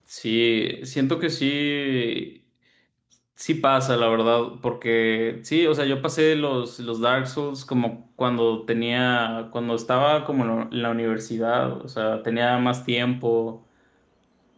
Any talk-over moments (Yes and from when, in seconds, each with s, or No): No